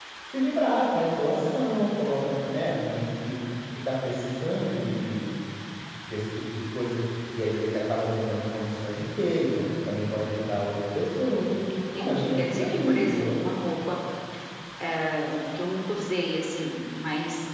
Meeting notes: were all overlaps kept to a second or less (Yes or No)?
No